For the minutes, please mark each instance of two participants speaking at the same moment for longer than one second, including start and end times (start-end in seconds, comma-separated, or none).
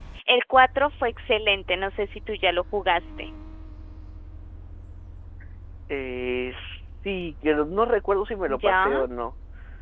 none